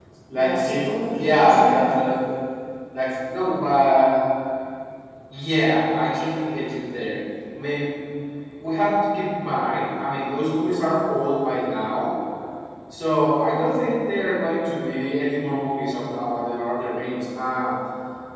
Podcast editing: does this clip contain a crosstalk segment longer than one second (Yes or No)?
Yes